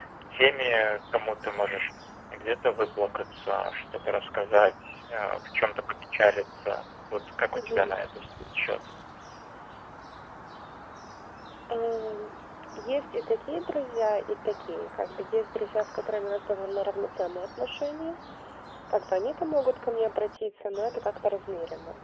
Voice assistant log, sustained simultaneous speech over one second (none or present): none